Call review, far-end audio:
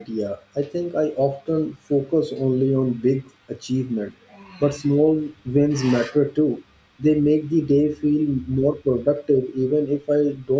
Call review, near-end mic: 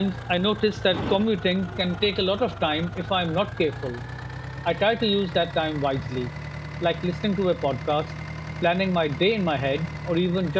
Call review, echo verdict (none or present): none